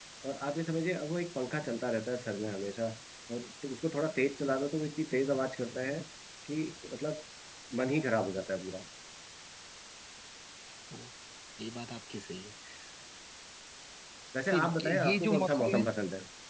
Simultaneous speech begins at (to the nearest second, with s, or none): 15 s